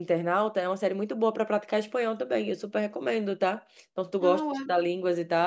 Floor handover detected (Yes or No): No